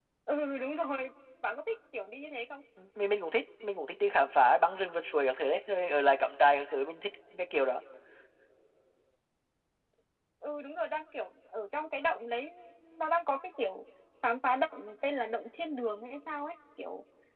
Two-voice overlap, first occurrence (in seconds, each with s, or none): none